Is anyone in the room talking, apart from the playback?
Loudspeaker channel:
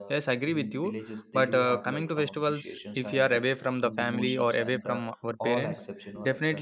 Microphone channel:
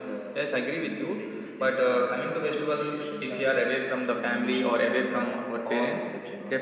No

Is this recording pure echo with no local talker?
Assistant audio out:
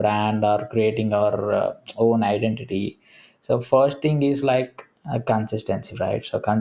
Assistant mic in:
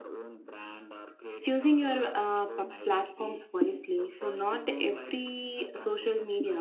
No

